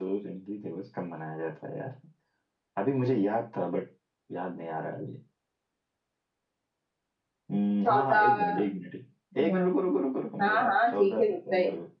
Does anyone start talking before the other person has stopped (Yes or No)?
Yes